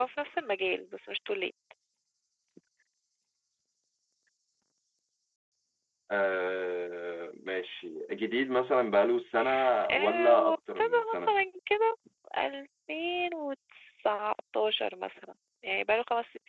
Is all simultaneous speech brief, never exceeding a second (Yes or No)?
No